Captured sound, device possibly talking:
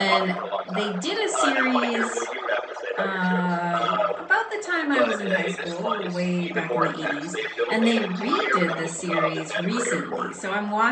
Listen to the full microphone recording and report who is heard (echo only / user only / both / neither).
both